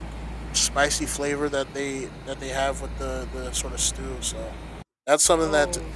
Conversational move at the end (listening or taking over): listening